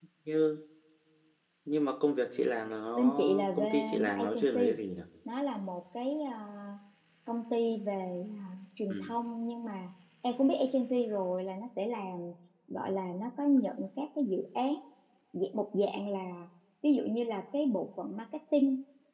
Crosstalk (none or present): present